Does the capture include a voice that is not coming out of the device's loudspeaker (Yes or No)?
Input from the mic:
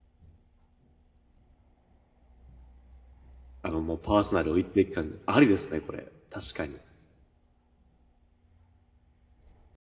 Yes